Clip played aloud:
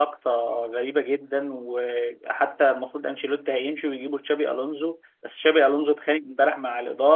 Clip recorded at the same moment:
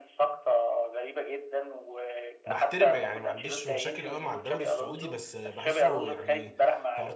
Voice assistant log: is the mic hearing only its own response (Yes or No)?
No